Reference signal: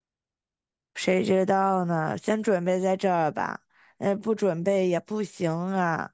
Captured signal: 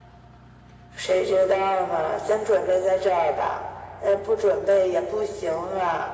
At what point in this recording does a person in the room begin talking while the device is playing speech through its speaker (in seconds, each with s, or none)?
none